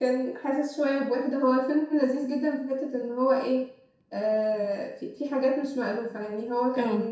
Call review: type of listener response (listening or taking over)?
listening